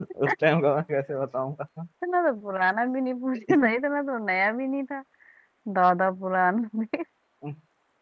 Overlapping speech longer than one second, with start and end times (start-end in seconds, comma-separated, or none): none